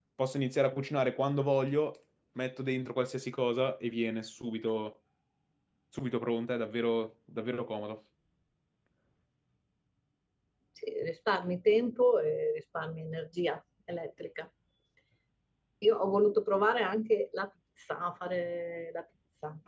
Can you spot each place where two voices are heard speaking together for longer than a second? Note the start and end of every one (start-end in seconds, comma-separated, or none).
none